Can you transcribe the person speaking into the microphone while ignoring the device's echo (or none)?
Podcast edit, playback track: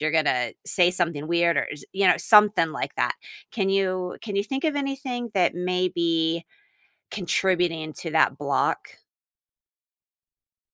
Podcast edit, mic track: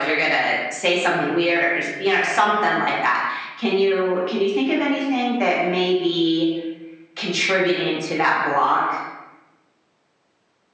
none